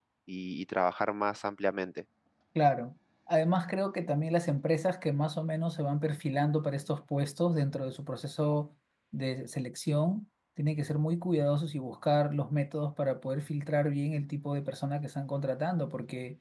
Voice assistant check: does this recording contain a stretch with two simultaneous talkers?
No

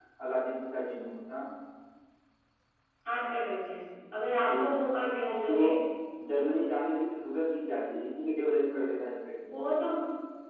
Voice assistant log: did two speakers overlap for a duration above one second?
No

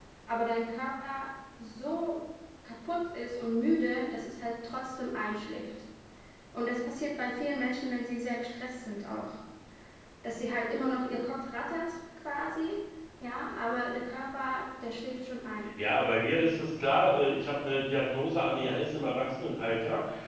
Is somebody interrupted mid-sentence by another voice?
No

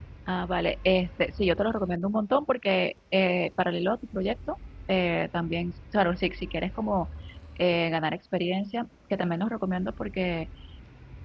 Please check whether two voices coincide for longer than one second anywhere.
No

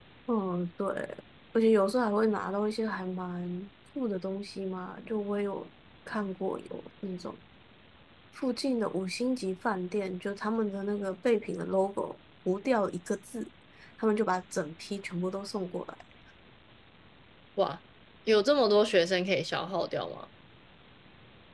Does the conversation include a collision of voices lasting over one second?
No

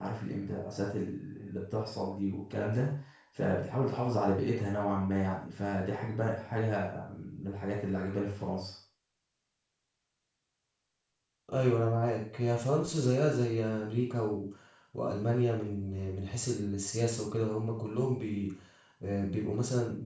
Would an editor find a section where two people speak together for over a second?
No

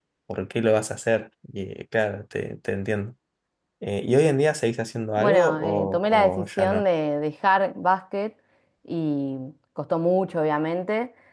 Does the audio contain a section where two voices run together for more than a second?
Yes, from 5.2 s

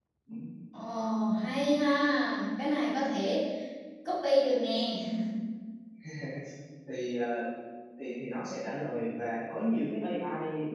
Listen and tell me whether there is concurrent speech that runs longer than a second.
No

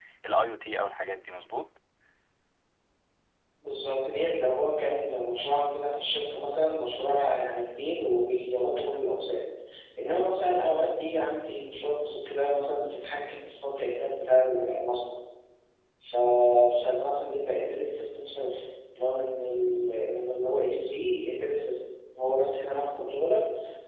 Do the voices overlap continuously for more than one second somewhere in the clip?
No

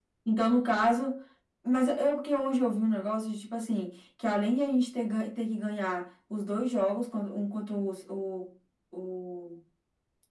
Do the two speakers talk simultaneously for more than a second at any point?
No

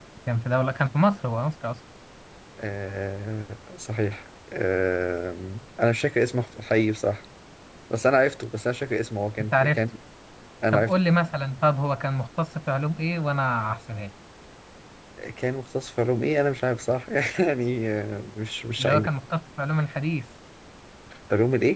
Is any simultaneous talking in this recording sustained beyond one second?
No

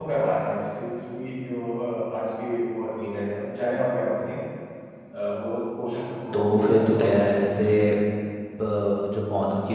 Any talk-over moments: Yes, from 6.3 s

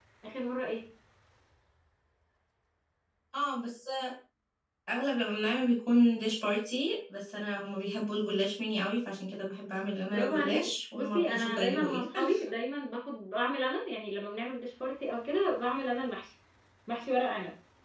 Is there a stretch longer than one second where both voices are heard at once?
Yes, from 10.0 s

